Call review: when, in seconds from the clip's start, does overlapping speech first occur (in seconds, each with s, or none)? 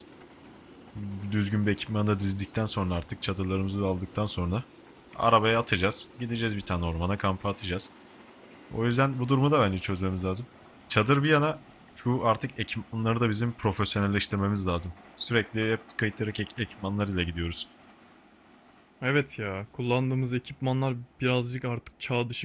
none